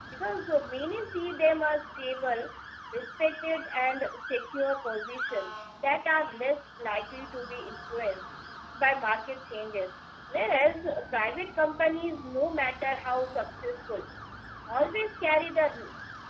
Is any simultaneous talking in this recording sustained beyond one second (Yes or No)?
No